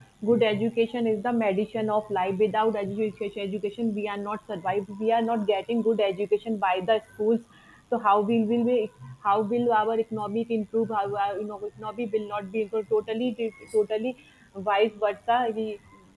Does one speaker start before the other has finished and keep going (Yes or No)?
No